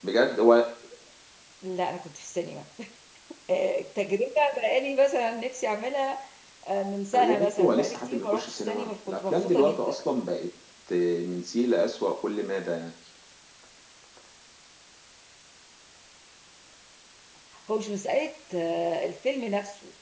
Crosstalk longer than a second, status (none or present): present